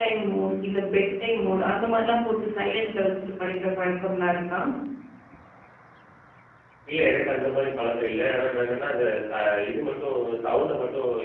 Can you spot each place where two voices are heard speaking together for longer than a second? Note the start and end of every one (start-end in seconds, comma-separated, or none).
none